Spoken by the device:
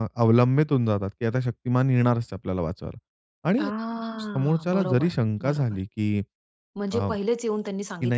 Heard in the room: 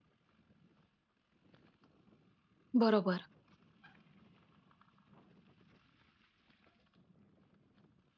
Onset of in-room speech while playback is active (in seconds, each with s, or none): 2.8 s